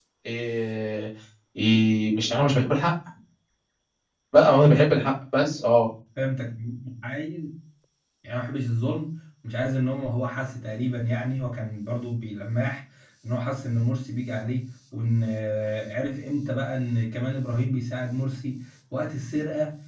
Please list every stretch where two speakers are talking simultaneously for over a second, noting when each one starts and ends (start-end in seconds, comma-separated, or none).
none